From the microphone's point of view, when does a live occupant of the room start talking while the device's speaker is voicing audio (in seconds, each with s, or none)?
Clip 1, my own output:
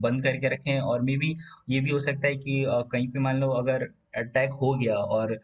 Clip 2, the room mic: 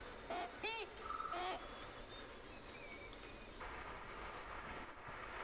none